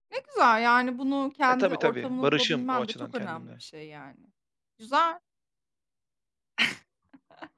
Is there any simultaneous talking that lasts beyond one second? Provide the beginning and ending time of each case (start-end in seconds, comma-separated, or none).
1.5-3.4